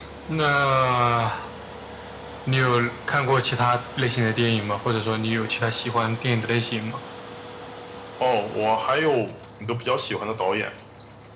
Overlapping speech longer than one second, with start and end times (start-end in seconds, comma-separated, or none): none